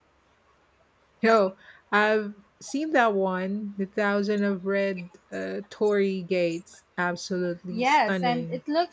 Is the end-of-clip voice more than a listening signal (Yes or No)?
Yes